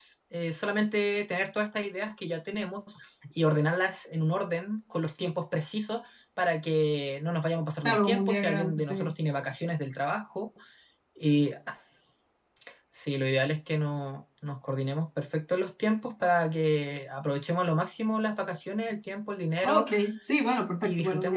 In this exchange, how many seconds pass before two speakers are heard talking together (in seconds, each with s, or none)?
7.8 s